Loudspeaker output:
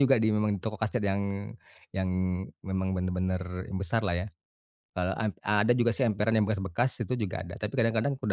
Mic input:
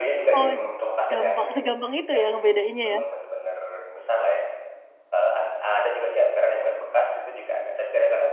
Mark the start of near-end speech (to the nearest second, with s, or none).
0 s